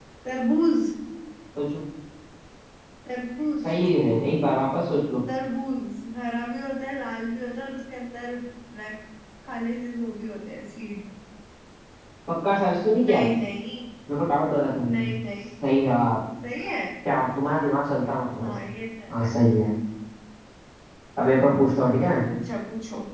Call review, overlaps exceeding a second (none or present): none